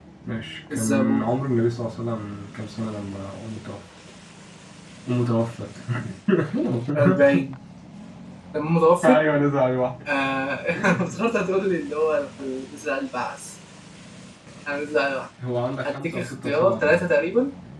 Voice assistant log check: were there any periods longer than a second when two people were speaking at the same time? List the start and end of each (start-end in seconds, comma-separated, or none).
15.8-17.1